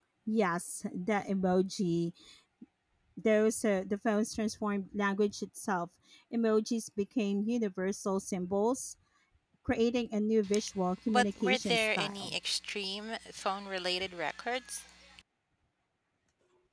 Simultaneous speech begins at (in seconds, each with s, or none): 11.1 s